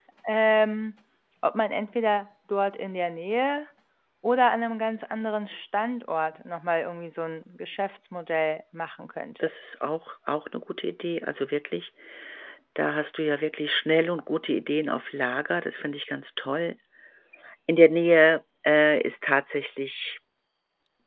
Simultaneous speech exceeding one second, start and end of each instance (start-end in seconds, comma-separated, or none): none